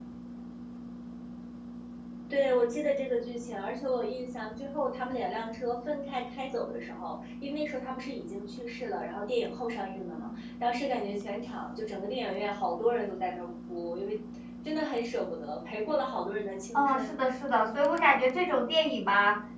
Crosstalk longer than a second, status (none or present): none